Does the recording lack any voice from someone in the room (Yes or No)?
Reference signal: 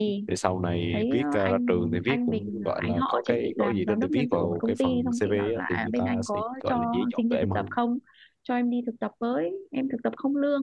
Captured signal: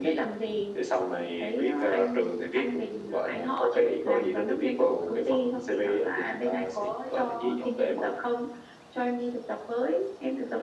Yes